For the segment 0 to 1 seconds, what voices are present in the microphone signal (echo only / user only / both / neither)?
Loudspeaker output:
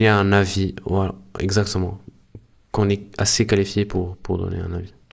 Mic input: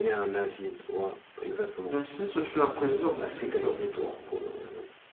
echo only